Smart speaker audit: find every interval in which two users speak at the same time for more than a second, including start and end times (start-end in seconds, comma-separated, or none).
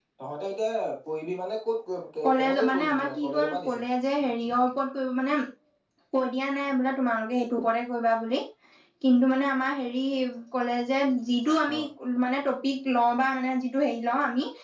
2.4-3.8